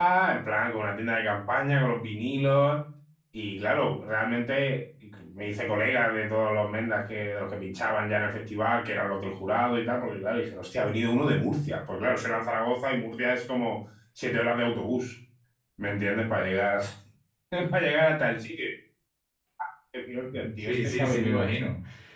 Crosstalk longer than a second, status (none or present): present